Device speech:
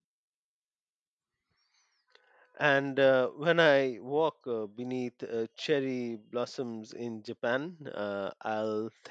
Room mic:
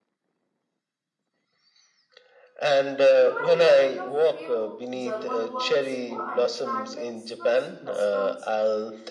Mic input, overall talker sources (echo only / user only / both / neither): both